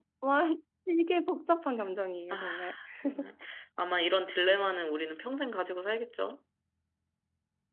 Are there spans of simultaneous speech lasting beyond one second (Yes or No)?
No